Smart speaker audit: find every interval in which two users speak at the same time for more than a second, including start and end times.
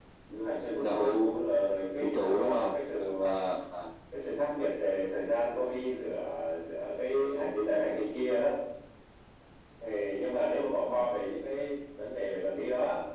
2.0-3.4

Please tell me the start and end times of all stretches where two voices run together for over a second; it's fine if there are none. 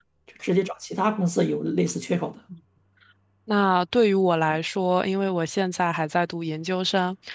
none

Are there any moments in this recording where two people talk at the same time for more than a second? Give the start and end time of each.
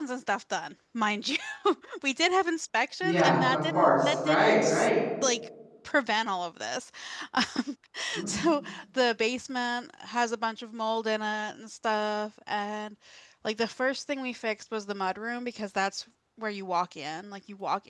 3.0-4.9

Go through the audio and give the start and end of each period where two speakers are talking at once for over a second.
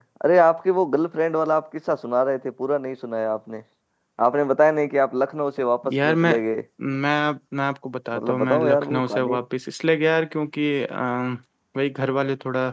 8.2-9.4

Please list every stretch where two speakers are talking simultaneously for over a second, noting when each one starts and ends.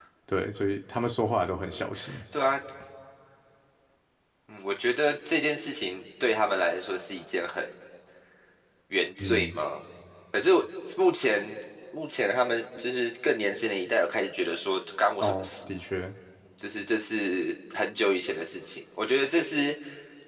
none

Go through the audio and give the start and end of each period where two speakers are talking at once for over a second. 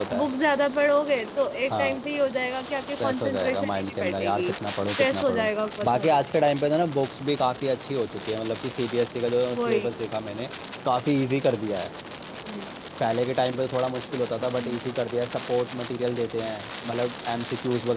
3.0-4.5

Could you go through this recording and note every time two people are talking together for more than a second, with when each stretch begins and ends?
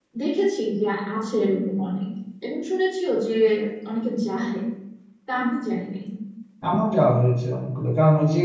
none

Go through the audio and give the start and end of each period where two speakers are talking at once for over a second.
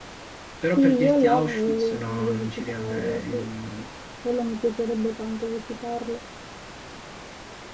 0.8-3.5

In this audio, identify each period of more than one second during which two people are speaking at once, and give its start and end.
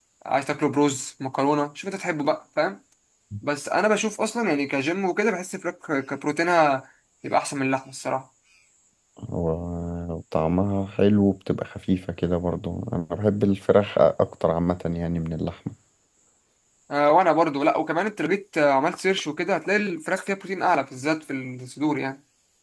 none

